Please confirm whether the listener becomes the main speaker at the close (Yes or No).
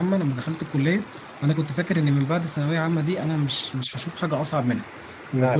No